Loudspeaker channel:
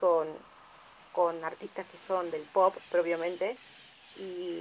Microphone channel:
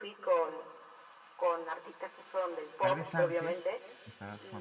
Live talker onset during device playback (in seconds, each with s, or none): 2.8 s